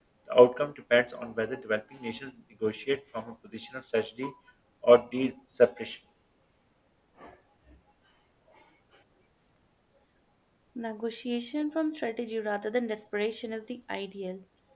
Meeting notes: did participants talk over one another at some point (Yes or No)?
No